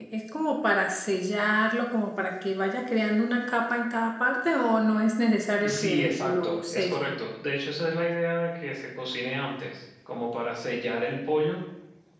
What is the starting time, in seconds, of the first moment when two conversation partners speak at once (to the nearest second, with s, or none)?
6 s